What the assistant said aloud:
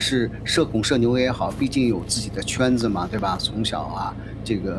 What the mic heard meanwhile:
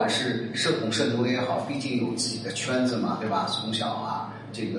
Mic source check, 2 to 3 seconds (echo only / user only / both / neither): echo only